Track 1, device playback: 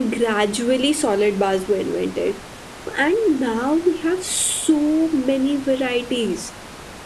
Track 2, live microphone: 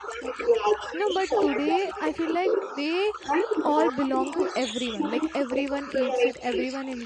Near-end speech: present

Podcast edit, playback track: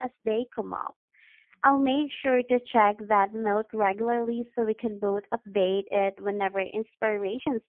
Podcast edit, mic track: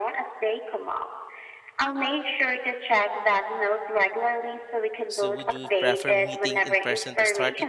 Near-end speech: present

